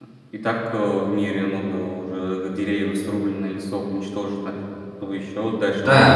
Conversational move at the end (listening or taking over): taking over